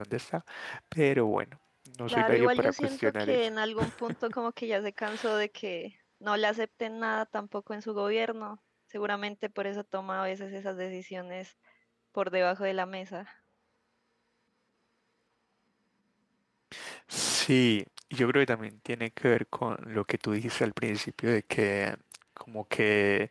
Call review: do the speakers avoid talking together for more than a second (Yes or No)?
No